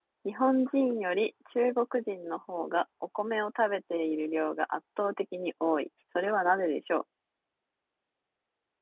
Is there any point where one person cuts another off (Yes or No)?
No